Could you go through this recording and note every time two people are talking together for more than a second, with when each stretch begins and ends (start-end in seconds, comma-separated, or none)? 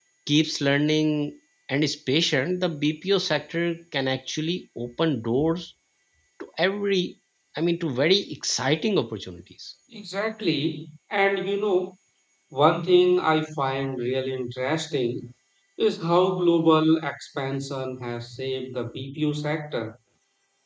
none